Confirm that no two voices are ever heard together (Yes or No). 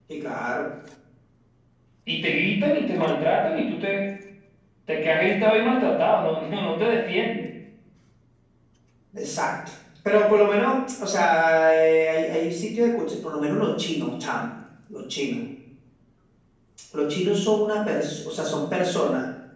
Yes